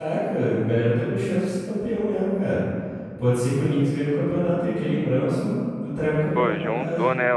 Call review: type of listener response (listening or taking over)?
taking over